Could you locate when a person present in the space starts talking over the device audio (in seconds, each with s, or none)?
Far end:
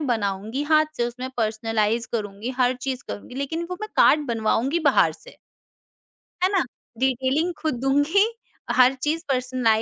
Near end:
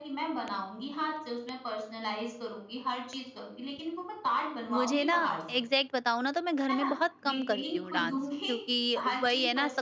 4.7 s